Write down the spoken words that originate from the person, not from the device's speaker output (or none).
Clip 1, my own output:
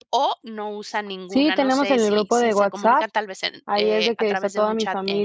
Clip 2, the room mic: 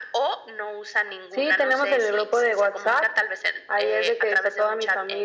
none